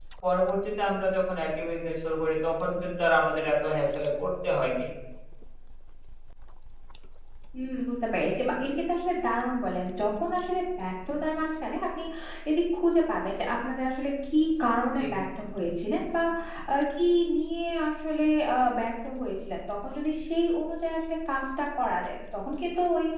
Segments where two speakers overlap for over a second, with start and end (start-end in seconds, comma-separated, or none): none